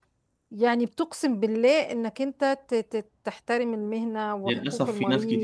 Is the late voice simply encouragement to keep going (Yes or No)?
No